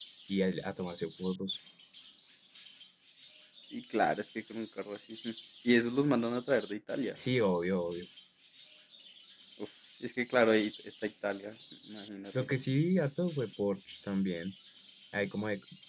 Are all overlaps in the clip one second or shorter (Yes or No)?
Yes